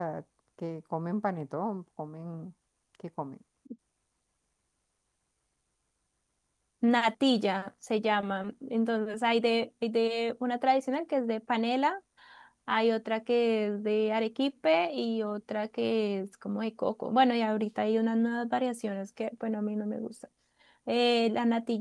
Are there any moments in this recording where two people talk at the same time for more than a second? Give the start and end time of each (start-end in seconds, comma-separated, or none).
none